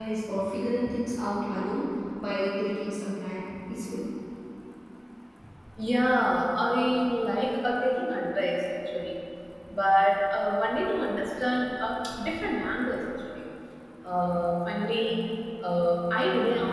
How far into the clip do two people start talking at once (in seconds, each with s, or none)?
none